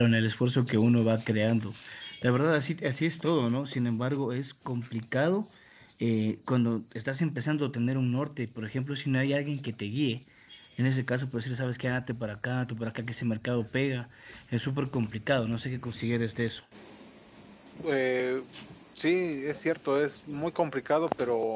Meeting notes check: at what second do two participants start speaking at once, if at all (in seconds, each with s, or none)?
none